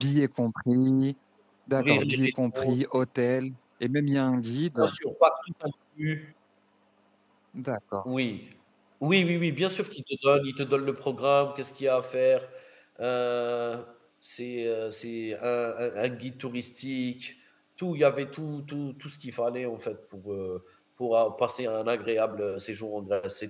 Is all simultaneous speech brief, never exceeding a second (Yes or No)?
No